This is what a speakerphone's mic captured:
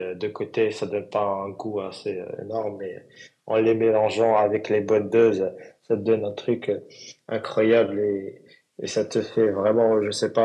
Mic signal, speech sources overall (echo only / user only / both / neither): echo only